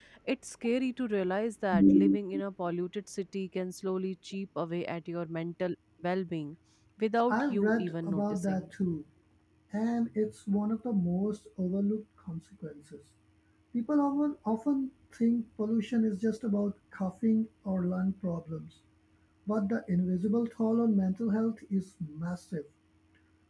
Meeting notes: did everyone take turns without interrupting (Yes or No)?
No